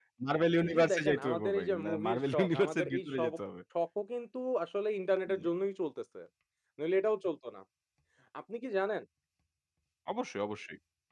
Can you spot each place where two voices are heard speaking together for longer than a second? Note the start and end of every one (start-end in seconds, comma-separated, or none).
0.6-3.3